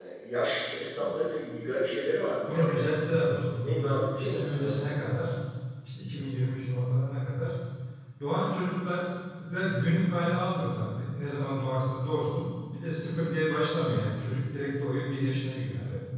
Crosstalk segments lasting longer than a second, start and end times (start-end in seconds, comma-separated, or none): 3.6-4.9